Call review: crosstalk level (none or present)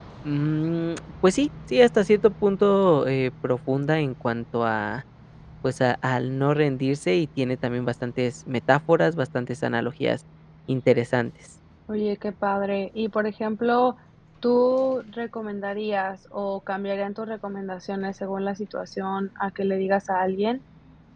none